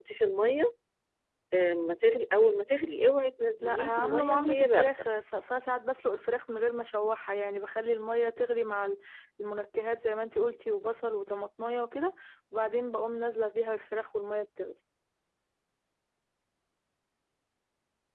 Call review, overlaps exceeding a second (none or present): present